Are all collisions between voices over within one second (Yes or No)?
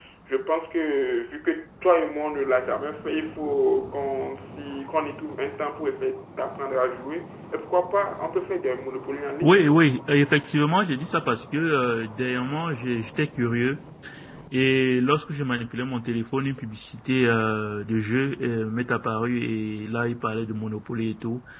Yes